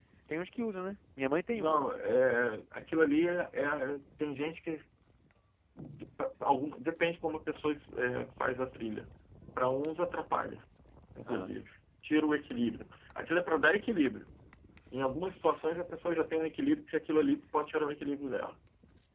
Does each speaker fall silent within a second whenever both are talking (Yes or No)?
Yes